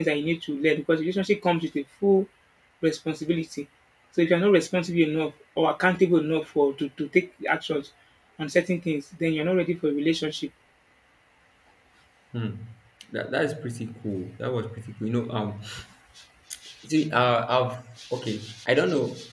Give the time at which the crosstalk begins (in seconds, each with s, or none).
none